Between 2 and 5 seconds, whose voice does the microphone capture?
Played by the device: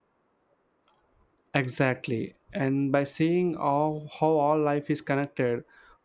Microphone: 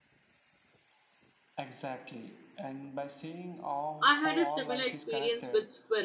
both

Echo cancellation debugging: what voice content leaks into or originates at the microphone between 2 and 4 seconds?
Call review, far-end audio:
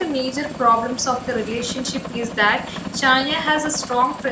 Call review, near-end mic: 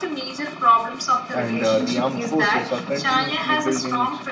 both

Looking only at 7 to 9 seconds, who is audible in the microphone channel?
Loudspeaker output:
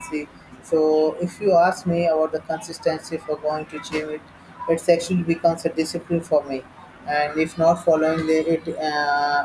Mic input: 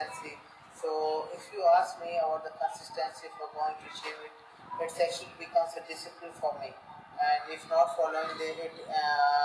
echo only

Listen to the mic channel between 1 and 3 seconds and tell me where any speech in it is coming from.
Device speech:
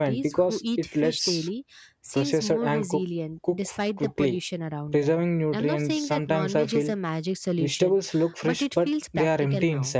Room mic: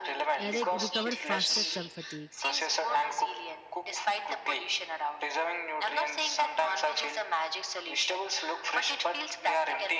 both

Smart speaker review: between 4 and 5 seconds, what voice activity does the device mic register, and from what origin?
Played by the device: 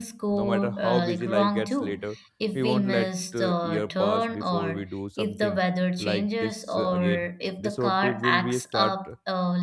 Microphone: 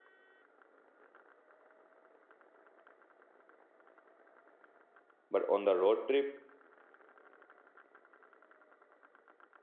neither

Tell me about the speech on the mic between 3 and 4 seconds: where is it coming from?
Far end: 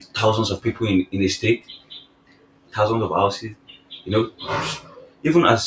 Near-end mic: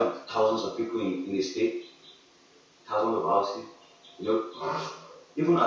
echo only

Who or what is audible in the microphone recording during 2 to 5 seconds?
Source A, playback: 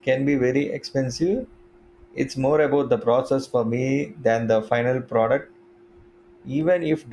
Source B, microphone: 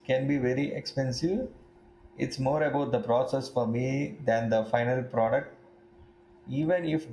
echo only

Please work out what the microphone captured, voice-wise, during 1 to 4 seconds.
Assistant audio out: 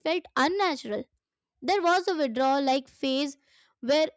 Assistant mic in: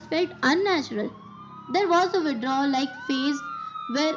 echo only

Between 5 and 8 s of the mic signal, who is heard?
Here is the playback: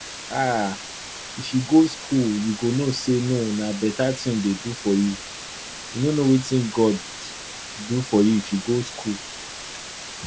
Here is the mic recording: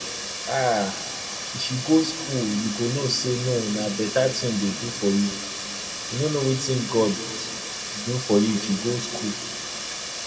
echo only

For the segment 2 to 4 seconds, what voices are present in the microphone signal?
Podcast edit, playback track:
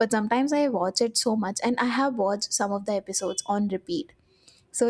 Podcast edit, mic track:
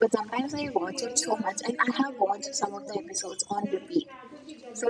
both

